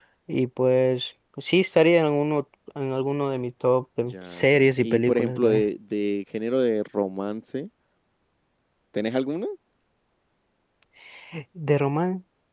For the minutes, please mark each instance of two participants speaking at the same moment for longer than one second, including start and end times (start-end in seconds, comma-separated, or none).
4.1-5.6